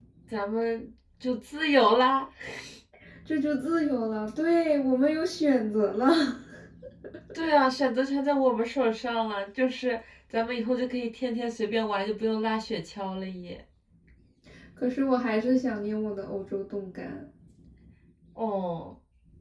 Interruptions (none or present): none